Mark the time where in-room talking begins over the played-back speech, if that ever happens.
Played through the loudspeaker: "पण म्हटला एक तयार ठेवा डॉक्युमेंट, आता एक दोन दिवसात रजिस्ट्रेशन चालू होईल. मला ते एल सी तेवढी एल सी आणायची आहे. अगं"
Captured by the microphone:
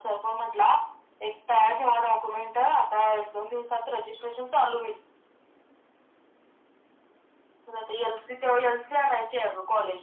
none

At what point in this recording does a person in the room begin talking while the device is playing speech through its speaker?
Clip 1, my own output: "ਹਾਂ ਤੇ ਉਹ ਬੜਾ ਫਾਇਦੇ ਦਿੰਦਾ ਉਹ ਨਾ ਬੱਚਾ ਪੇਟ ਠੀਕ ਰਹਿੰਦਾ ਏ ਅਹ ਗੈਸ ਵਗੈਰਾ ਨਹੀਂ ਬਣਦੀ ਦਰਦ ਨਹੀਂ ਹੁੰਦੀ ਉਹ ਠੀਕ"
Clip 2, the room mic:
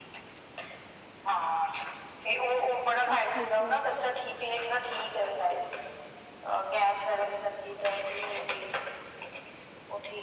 3 s

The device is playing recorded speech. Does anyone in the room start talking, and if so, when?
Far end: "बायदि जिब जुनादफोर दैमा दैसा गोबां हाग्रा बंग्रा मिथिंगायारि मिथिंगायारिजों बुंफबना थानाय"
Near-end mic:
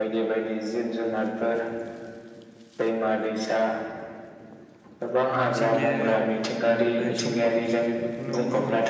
5 s

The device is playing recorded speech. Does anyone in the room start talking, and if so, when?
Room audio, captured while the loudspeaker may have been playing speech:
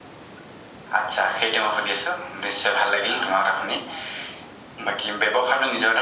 none

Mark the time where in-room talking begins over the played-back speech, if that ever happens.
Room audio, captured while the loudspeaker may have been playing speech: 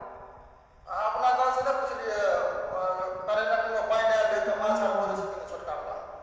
4 s

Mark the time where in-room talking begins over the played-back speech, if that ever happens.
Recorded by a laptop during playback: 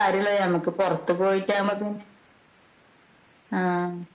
none

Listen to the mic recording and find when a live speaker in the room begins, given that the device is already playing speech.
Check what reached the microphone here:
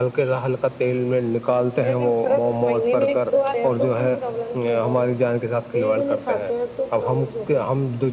none

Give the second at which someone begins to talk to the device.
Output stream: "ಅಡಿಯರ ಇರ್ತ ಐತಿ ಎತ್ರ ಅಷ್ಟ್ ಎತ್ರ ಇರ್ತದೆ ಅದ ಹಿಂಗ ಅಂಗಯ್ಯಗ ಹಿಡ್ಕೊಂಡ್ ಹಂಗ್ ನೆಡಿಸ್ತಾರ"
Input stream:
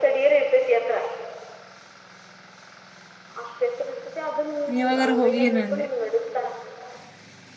5 s

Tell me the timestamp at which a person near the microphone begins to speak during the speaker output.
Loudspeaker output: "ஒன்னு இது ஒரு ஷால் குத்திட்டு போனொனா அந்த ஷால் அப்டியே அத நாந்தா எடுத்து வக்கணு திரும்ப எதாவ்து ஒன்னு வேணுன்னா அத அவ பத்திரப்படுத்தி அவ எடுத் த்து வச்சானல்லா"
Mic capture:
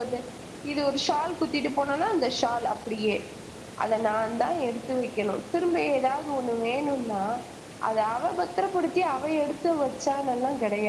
none

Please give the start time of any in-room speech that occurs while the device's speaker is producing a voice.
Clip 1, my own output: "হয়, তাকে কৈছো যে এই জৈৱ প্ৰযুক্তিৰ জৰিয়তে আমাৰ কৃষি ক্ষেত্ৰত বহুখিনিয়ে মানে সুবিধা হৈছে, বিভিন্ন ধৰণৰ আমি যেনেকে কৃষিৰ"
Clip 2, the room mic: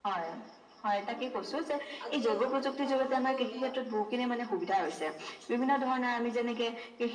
2 s

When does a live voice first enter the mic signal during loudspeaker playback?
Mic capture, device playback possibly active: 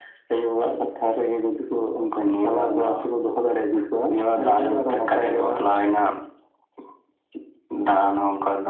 none

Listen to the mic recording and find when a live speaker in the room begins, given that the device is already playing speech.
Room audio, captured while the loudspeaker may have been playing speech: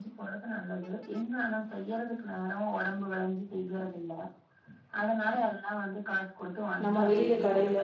7 s

